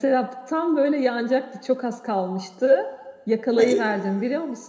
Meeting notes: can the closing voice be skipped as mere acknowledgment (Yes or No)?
Yes